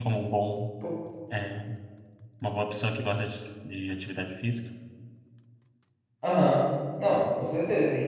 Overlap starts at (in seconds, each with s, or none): none